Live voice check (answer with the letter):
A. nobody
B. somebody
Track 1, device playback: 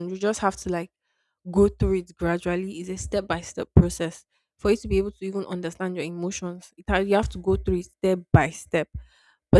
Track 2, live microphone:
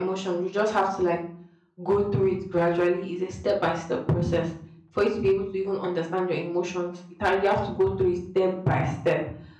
A